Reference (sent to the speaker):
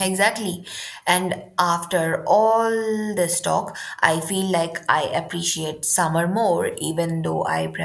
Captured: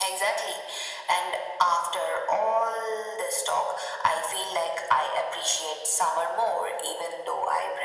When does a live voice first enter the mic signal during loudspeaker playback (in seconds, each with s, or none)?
none